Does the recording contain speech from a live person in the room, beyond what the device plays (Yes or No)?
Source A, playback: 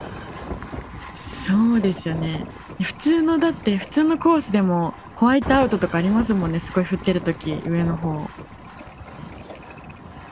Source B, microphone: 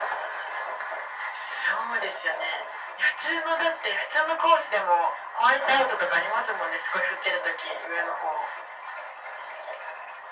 No